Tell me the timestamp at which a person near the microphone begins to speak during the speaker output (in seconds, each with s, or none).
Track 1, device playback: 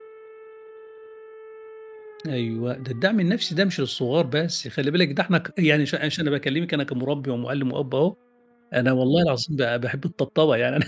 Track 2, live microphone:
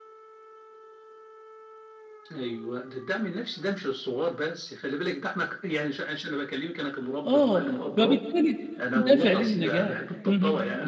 7.2 s